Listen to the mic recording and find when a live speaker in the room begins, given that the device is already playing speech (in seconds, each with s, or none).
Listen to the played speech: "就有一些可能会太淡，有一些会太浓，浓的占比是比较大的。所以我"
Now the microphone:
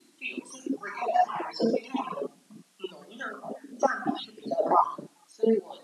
none